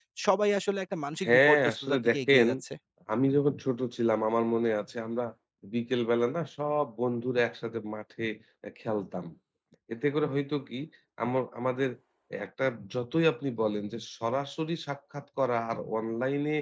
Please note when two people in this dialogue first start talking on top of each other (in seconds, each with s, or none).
1.2 s